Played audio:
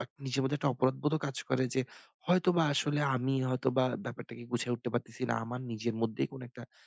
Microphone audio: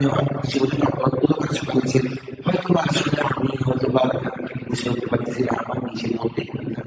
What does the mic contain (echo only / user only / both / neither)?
echo only